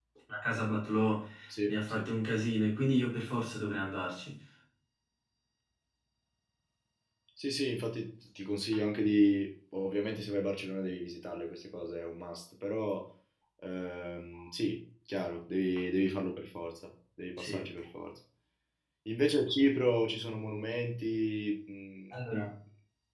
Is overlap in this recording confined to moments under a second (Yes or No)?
Yes